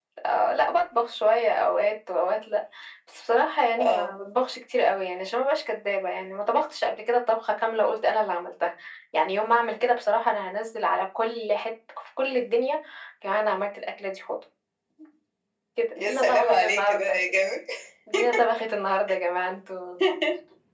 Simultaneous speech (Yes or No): Yes